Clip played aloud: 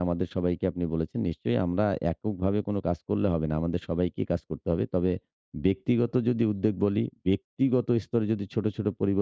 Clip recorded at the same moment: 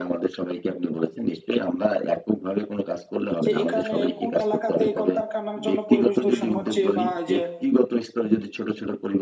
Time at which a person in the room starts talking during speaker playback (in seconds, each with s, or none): 3.4 s